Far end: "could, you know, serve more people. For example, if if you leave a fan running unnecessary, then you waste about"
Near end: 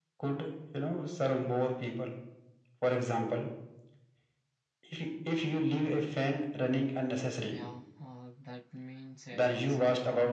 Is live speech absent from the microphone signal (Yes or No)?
No